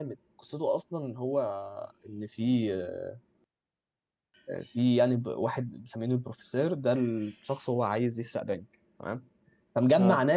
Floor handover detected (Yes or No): No